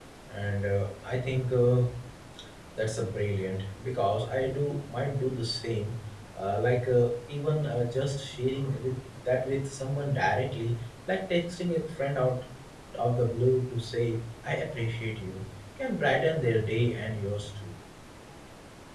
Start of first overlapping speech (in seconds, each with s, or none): none